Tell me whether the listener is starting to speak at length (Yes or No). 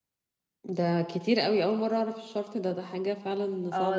Yes